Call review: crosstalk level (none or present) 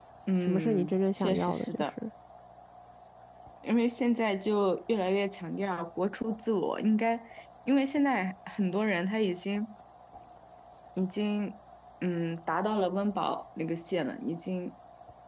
present